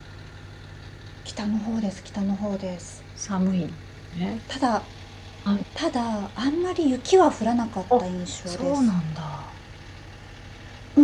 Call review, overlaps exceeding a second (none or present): none